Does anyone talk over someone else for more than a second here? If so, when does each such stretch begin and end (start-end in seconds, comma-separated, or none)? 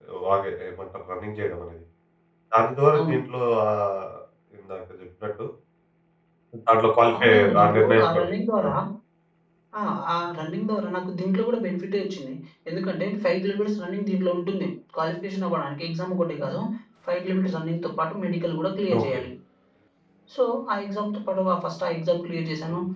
7.2-8.6